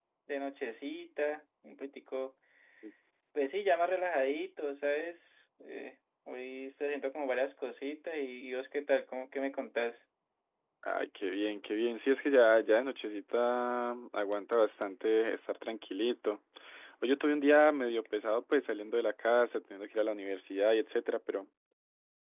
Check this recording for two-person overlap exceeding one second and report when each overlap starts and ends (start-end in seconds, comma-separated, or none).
none